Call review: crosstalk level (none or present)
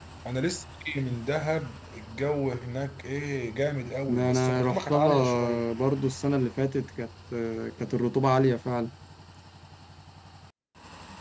present